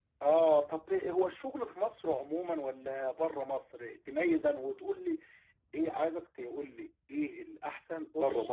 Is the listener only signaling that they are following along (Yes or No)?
Yes